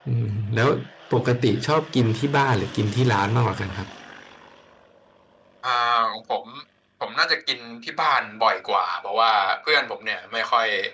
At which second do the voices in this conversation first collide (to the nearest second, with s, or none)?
none